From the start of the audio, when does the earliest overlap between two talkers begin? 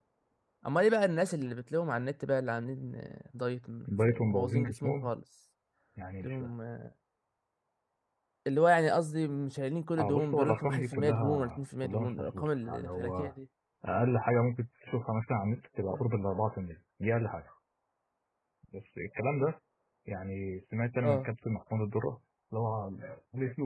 4 s

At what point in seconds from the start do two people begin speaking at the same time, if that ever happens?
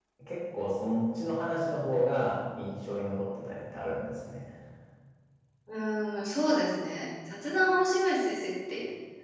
none

